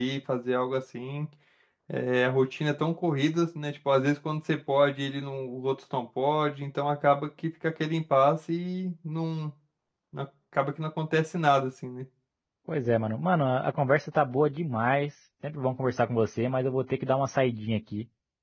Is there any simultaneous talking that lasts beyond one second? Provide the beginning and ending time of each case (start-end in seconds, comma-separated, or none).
none